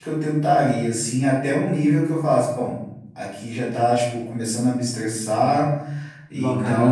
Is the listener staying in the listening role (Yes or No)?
No